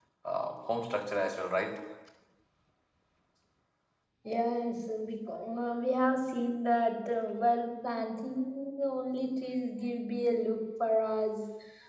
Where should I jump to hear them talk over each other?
none

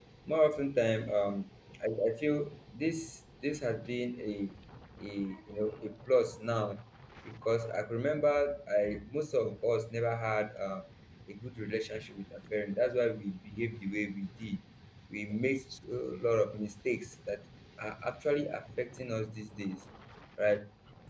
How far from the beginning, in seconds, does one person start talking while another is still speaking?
none

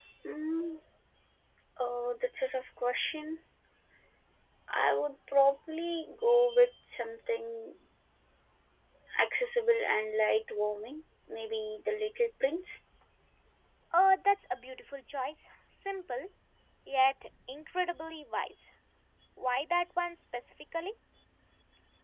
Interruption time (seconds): none

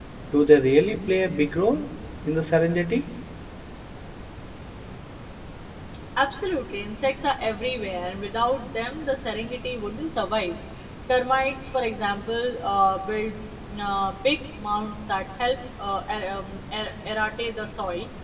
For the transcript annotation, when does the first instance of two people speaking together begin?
none

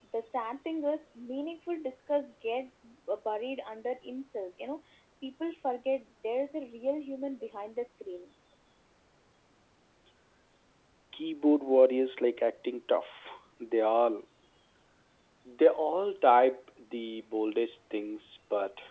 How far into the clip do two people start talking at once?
none

